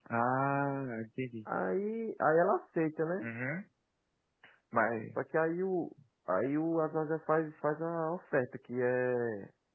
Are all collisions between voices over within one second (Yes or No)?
Yes